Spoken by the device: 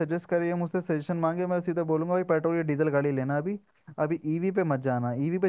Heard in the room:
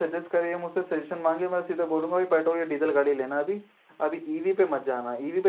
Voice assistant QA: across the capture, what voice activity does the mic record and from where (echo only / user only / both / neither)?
echo only